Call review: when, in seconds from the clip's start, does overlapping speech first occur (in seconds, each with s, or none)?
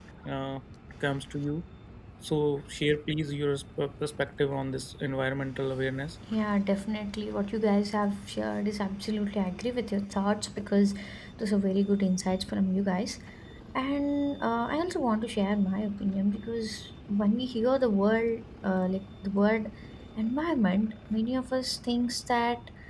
none